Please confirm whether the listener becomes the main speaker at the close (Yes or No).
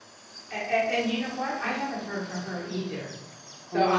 No